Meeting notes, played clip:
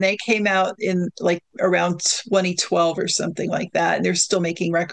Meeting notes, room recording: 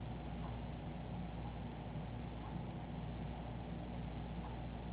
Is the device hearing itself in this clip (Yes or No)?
No